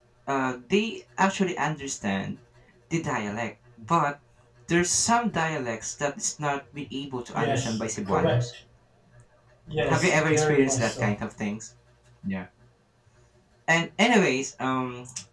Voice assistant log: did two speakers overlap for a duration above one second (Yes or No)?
Yes